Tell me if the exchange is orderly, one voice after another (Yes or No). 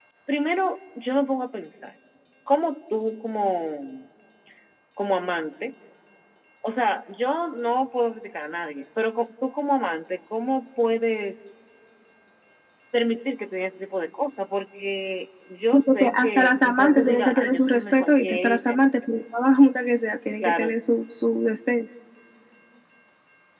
No